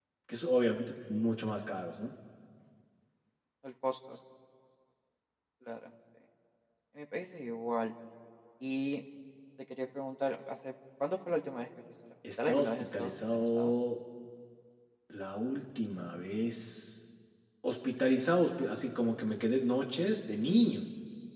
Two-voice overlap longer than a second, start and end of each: 12.5-13.7

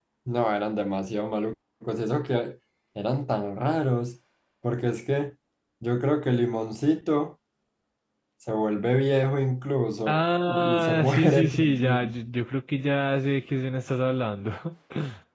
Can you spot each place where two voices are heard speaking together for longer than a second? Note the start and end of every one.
10.1-12.2

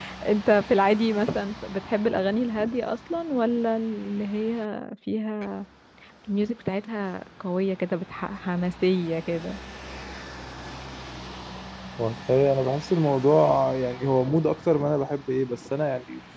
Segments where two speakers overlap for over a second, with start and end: none

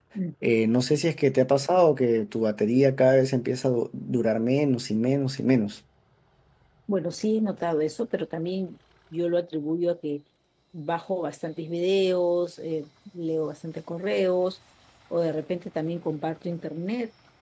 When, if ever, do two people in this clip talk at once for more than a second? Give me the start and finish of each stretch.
none

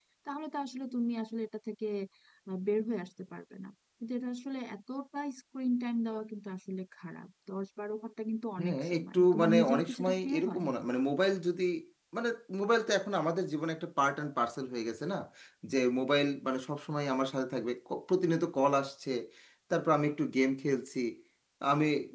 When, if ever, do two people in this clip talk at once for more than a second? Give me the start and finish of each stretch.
8.6-10.6

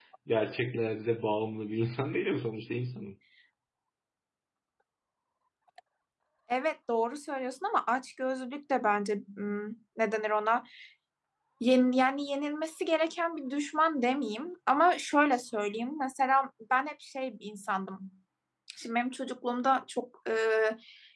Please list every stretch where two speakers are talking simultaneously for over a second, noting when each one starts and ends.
none

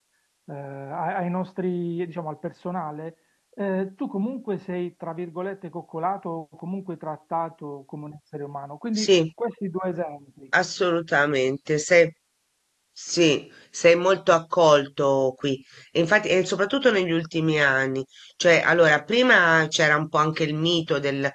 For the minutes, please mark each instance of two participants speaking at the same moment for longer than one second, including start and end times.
none

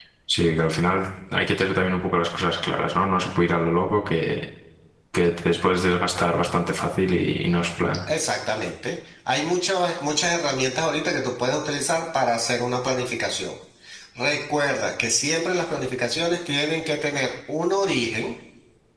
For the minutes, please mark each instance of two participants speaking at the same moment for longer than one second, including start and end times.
none

